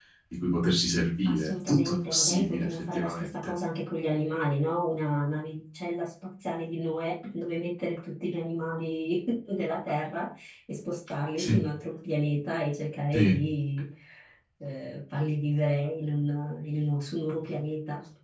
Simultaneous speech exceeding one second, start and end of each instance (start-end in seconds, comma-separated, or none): 1.3-3.5